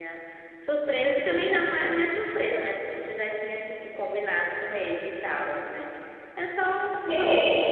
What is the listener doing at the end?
taking over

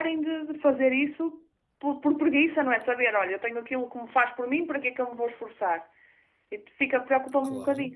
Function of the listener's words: taking over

